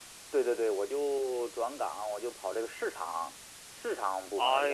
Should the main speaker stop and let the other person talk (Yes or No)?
Yes